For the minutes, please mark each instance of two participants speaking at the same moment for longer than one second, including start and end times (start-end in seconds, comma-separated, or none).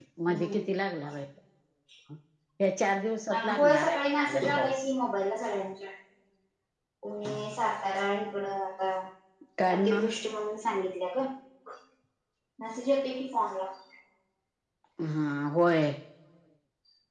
3.4-4.8